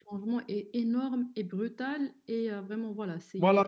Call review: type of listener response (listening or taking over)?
taking over